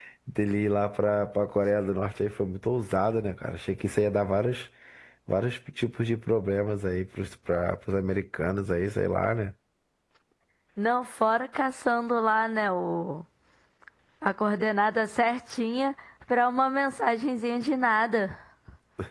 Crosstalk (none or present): none